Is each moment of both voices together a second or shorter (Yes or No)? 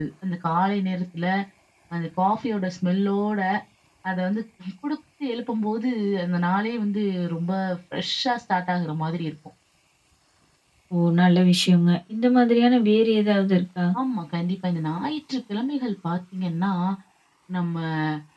Yes